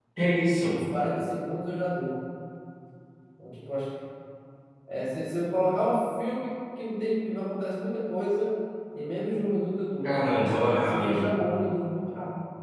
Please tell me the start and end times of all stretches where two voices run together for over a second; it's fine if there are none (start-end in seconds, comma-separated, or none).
10.0-11.3